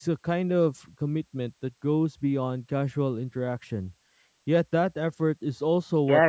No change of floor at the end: No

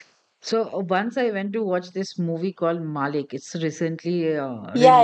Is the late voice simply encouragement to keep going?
No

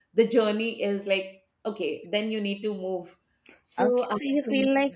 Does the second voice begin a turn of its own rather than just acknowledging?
Yes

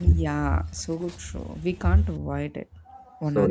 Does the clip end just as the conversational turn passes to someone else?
Yes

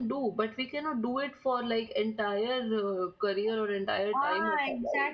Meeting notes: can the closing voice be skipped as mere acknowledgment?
No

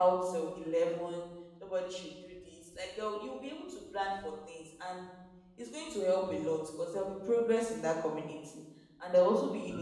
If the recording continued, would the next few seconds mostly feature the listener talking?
No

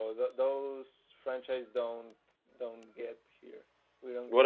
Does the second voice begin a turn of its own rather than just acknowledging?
Yes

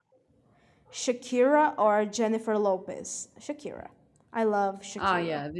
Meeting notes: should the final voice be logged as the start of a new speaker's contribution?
Yes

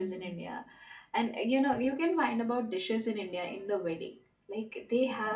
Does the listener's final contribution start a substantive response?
No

